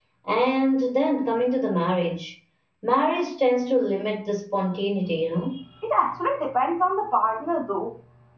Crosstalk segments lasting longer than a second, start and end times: none

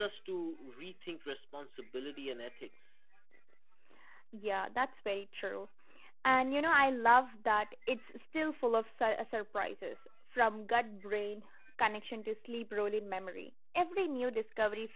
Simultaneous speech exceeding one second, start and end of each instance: none

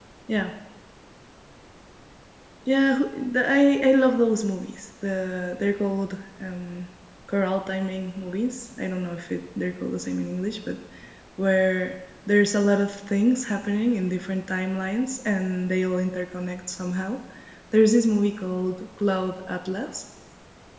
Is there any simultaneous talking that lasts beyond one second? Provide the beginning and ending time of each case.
none

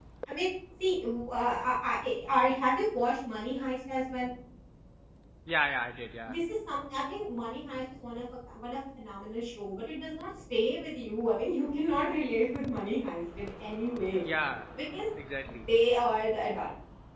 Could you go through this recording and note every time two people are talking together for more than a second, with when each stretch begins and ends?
none

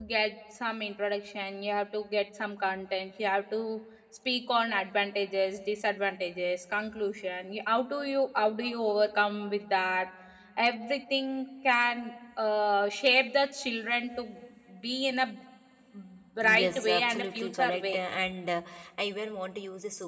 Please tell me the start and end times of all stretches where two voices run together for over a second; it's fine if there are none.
16.4-18.0

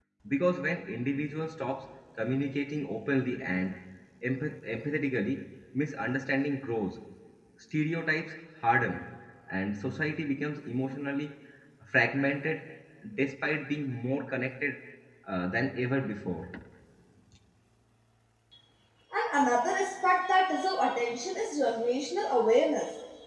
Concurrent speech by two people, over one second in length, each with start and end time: none

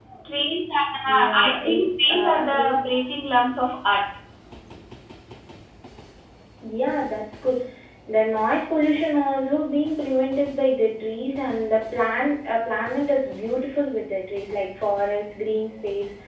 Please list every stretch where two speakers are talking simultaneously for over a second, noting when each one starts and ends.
1.0-2.8

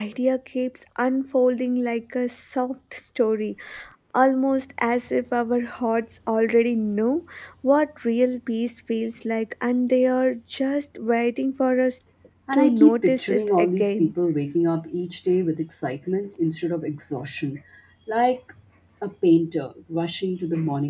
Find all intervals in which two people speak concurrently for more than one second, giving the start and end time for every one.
12.5-14.1

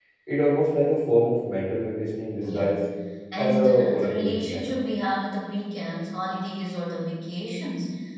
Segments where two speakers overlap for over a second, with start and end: 3.4-4.7

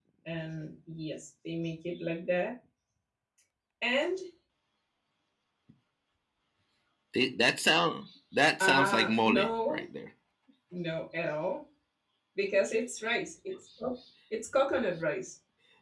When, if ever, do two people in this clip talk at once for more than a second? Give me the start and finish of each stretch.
8.6-9.8

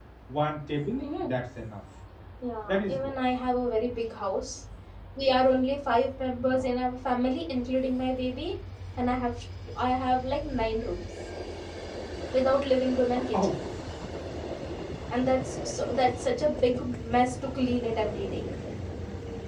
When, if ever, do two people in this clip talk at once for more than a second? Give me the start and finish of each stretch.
none

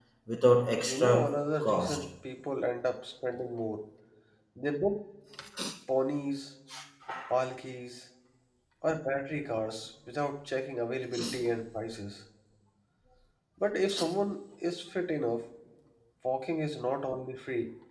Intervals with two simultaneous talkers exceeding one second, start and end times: 0.8-2.0

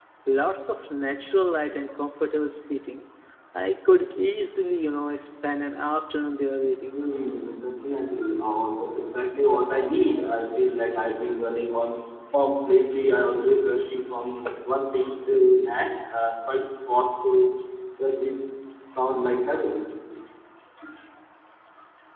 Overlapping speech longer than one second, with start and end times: none

